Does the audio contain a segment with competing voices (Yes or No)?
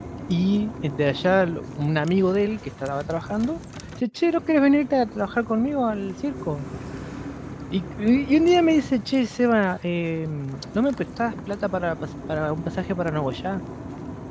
No